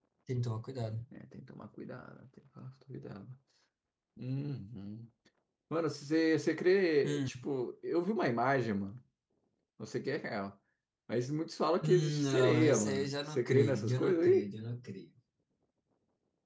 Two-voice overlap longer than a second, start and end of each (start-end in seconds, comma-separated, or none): 11.8-14.5